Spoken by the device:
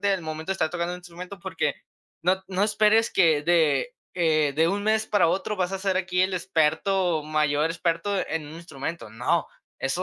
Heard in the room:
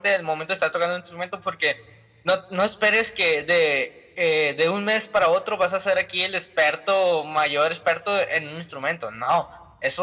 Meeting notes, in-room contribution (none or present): none